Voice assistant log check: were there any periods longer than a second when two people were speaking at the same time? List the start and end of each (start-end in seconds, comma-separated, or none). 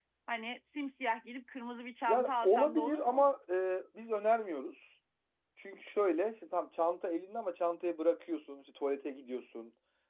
2.1-3.3